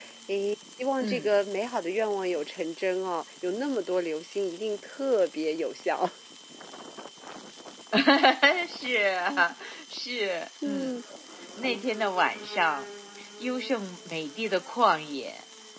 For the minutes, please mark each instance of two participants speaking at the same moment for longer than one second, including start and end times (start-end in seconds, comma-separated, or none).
none